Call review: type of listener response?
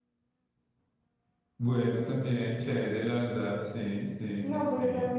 taking over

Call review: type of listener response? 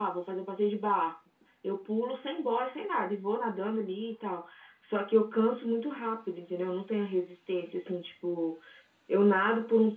listening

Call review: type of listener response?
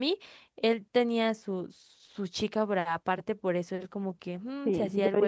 taking over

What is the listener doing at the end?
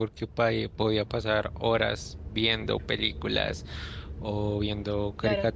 listening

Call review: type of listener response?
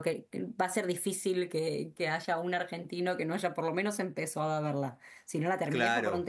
listening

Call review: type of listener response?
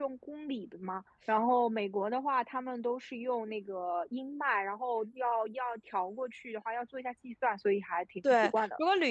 taking over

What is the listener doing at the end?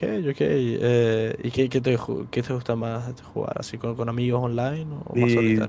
taking over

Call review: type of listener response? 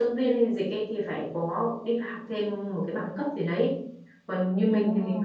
listening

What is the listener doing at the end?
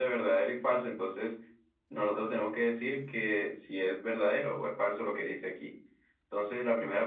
taking over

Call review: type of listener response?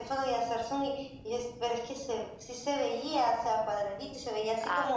listening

